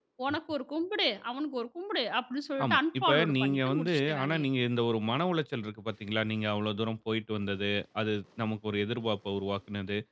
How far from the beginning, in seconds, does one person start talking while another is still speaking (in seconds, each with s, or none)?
2.6 s